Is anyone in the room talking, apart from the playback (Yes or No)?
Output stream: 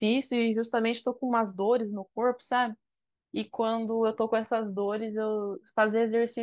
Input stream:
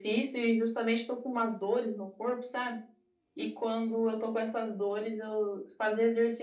No